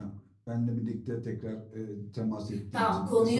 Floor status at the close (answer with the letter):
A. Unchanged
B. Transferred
B